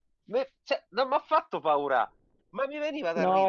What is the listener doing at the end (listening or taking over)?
taking over